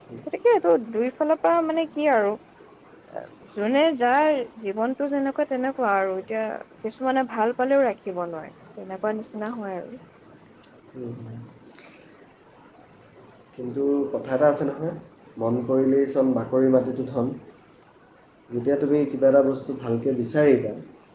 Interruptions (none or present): none